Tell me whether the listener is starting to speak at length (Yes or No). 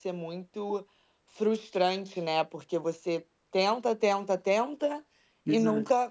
No